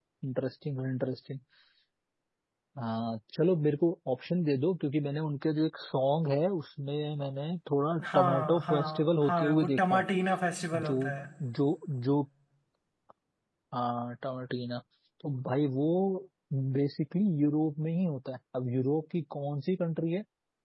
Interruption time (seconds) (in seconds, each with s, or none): 8.1 s